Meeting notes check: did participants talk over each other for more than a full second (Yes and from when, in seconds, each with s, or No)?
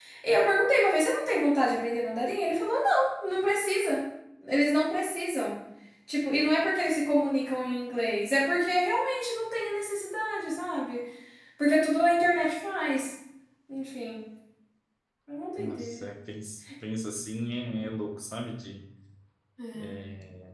No